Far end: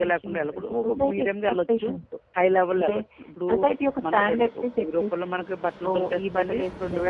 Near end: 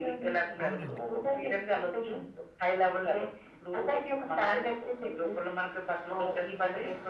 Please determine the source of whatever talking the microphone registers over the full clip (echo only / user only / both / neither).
both